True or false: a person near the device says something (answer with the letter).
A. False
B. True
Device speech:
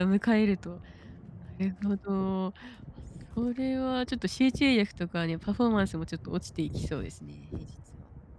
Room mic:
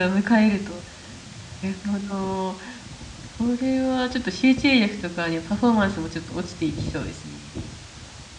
A